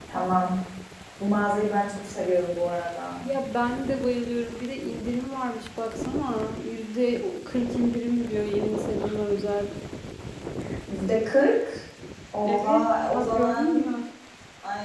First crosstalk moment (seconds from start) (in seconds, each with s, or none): 12.4 s